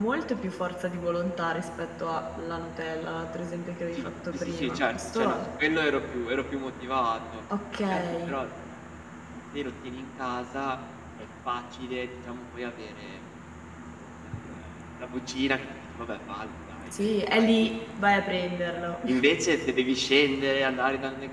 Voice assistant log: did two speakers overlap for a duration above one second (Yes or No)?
Yes